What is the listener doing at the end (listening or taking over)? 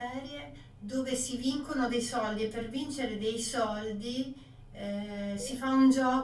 listening